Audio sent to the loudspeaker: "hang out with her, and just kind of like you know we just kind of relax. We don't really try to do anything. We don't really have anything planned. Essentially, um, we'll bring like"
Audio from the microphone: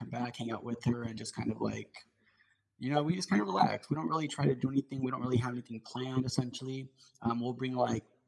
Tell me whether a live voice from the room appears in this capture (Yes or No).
No